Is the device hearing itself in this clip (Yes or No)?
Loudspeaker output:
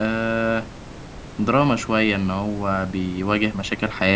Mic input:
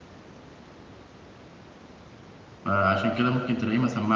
No